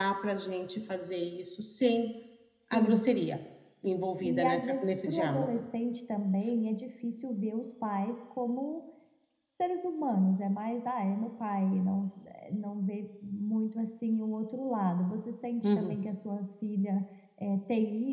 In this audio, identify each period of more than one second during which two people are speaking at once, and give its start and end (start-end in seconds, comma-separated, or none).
4.2-5.6